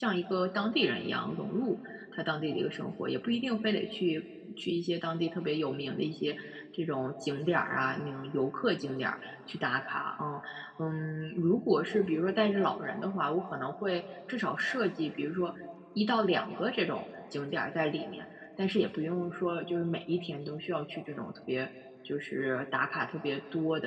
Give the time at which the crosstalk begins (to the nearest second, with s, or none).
none